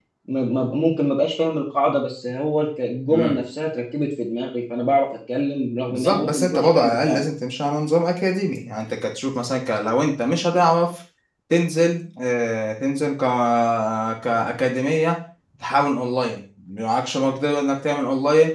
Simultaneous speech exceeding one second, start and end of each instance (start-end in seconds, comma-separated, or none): 5.9-7.3